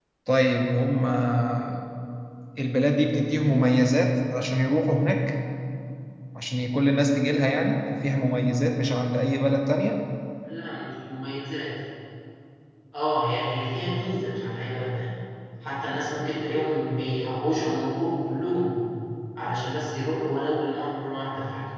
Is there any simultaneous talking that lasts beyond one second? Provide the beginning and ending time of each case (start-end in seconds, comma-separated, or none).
none